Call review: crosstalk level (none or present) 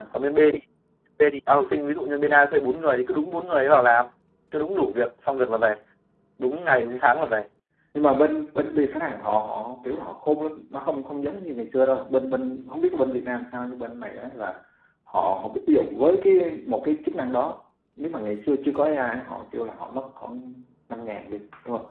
none